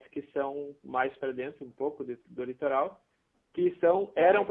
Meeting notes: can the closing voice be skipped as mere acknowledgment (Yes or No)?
Yes